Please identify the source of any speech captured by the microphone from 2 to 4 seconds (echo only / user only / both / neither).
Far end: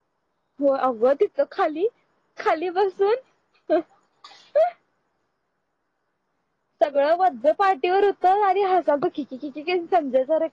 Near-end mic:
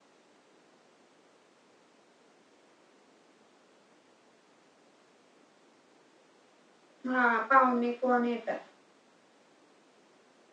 neither